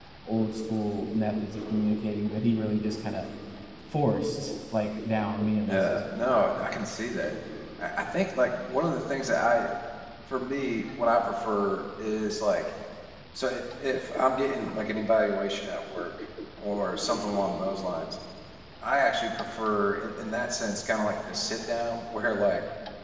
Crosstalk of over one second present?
No

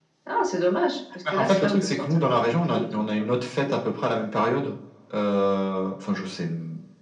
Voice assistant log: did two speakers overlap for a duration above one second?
Yes, from 1.3 s

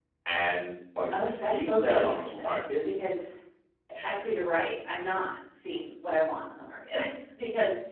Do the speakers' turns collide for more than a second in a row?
Yes, from 1.1 s

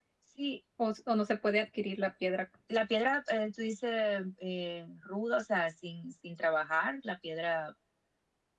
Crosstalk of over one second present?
No

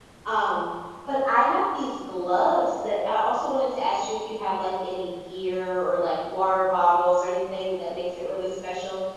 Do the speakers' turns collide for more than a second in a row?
No

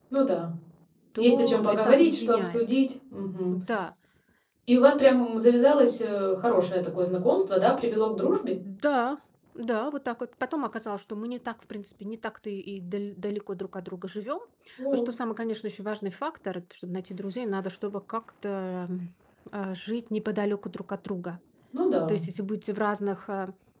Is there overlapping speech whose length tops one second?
Yes, from 1.2 s

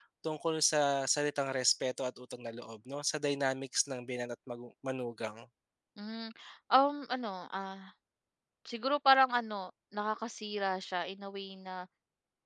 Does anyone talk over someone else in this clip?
No

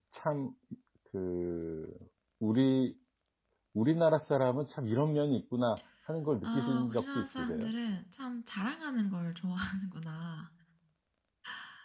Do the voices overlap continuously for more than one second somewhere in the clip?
Yes, from 6.4 s

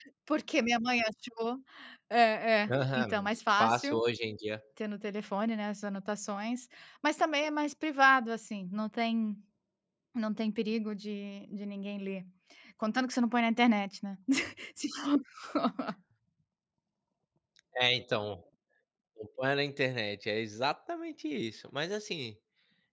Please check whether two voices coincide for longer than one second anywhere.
Yes, from 2.7 s

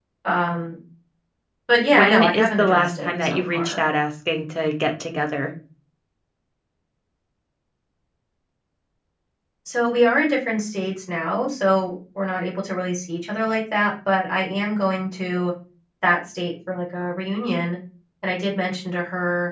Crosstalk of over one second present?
Yes, from 1.9 s

